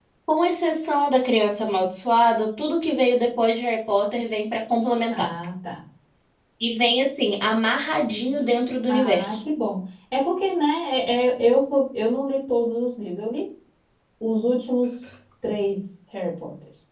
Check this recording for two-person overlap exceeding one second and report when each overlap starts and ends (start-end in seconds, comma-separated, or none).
none